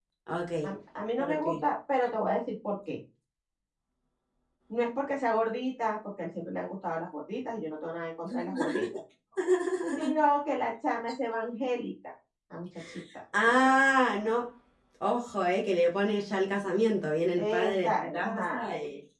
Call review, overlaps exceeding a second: present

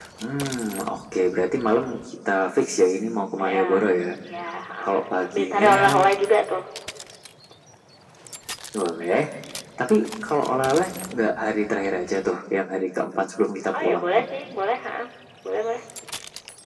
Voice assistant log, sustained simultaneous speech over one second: present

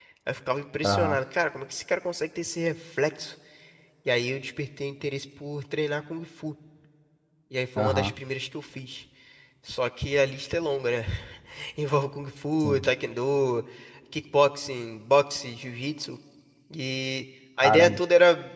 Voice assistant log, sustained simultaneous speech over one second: none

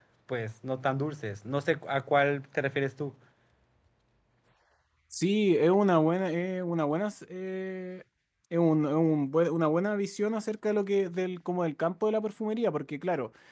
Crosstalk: none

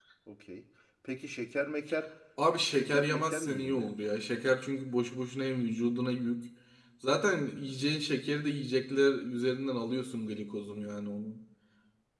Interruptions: present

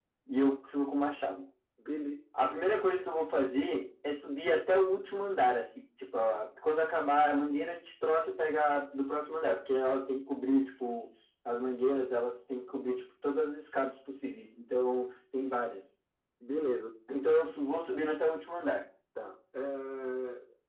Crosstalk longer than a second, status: none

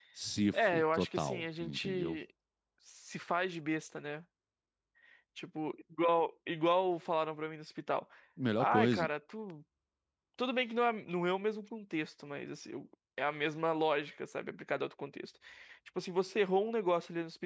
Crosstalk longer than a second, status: present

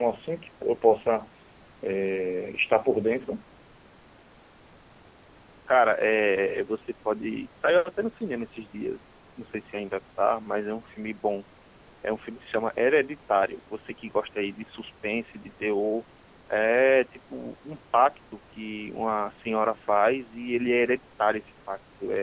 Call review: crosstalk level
none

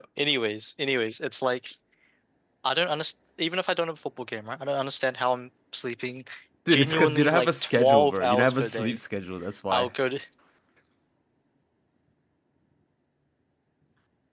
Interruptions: present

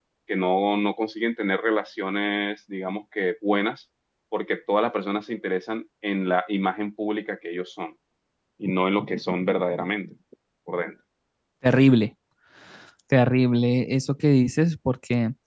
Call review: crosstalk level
none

